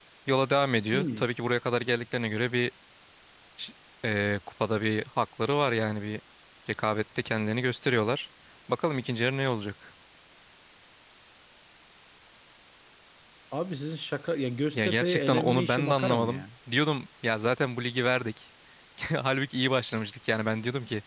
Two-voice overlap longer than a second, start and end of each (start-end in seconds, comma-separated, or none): 14.8-16.4